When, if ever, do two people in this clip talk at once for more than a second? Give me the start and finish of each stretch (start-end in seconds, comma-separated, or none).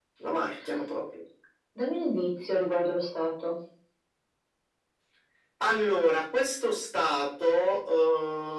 none